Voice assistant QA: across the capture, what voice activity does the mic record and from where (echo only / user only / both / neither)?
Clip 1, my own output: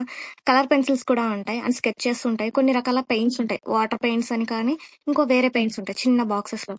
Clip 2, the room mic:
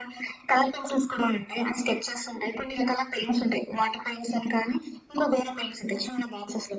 echo only